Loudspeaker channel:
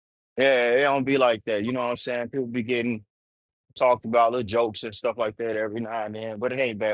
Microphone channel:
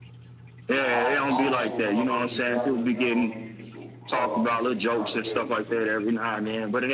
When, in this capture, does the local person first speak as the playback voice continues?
0.7 s

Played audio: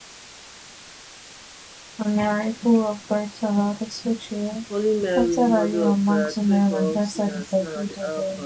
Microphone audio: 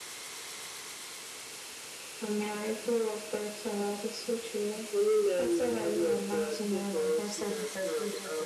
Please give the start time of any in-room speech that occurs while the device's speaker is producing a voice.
none

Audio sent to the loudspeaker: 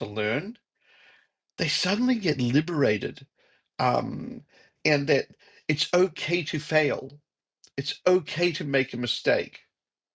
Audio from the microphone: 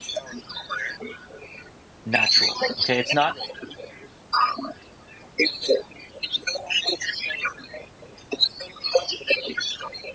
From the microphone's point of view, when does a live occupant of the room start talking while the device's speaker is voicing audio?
2.0 s

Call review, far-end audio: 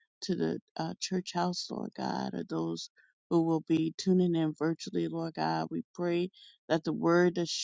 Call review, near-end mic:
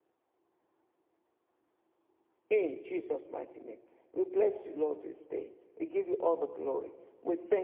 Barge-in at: 2.5 s

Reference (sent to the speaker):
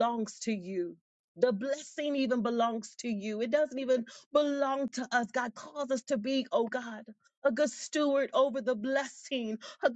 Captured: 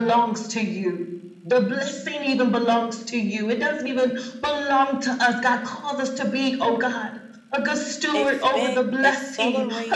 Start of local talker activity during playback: 8.1 s

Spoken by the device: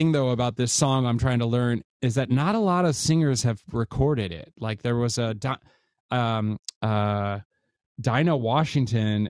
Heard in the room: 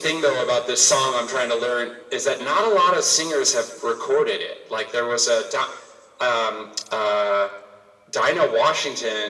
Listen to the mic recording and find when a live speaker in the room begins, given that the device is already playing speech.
none

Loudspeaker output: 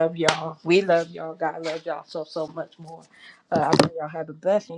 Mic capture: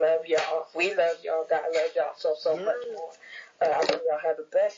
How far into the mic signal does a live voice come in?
2.5 s

